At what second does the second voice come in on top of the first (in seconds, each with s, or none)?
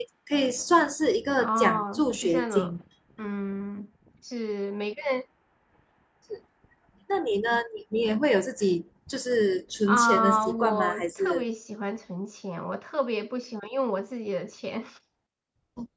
1.4 s